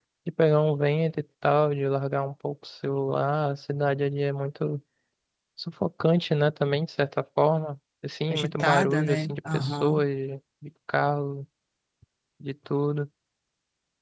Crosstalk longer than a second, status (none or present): present